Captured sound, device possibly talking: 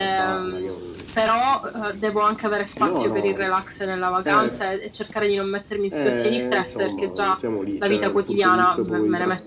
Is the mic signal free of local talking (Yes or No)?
No